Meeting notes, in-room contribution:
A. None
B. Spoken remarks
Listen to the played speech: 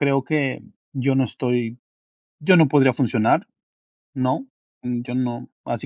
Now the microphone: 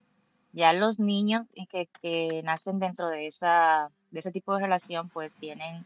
B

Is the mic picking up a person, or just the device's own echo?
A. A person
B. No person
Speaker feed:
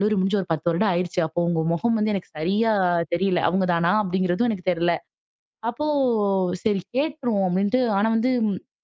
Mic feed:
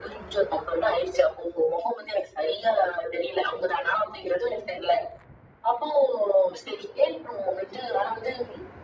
B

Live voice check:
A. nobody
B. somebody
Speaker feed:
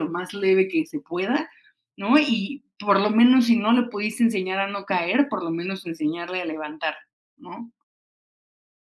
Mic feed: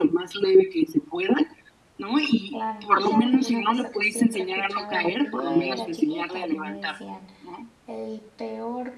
B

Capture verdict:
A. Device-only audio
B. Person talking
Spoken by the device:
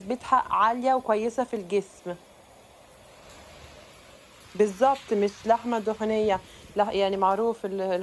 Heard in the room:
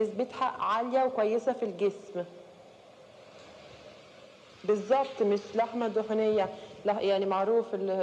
A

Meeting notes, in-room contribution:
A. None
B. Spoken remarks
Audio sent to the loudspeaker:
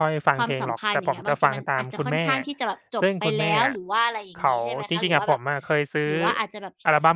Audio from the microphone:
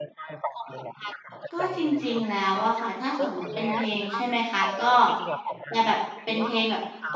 B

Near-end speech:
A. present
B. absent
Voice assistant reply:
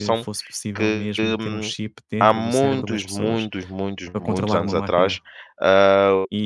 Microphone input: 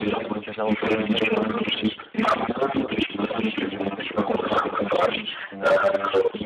A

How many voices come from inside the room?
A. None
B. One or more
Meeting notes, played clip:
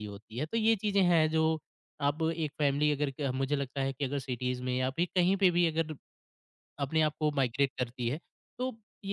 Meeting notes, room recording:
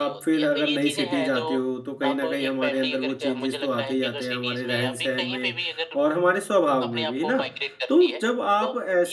B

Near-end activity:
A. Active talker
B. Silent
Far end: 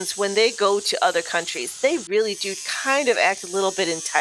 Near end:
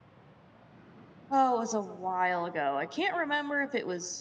A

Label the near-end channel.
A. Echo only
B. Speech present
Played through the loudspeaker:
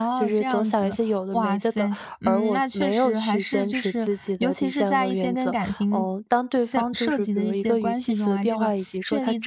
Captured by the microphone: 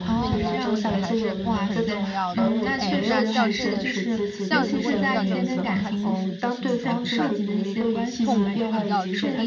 B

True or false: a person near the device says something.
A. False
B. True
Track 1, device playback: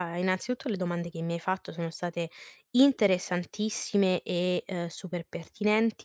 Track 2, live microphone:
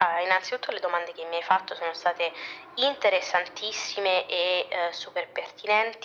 A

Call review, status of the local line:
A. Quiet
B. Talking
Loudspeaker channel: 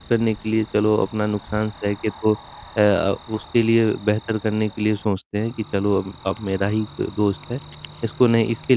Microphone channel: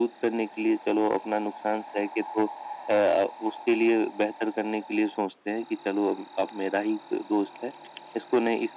A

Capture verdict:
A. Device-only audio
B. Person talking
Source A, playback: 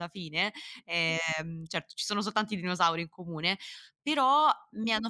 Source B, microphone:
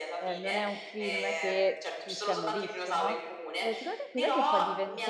B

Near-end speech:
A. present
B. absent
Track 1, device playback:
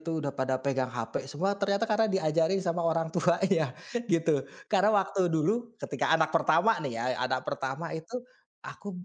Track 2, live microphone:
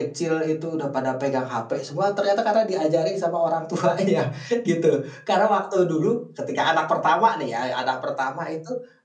B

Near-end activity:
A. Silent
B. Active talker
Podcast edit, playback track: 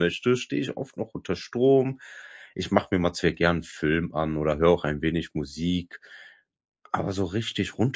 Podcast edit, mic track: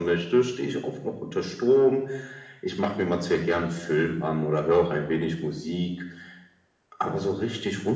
A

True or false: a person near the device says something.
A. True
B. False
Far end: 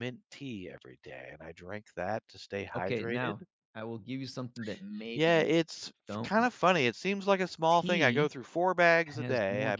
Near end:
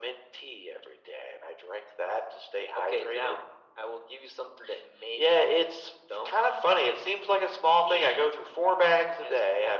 B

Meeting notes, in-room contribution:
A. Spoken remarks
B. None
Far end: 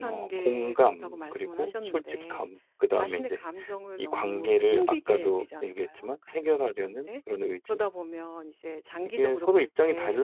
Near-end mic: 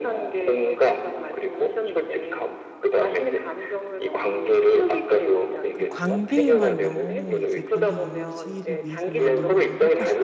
A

